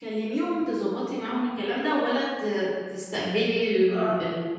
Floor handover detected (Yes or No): Yes